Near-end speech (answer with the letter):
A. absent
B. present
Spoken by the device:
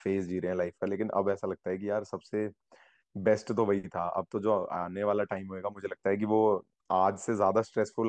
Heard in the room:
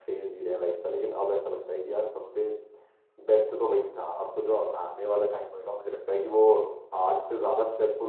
A